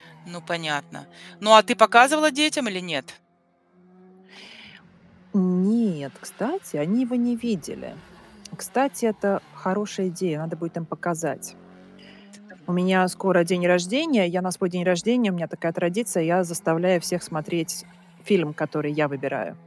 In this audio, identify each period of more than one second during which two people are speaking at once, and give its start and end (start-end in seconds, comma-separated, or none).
none